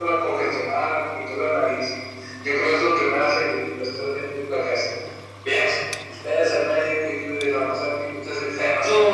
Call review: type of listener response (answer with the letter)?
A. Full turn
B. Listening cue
A